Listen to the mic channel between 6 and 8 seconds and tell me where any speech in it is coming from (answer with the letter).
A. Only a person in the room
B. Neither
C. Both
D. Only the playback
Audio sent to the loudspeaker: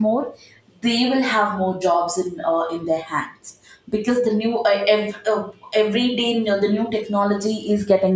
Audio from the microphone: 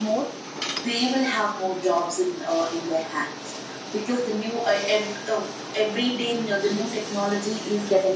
D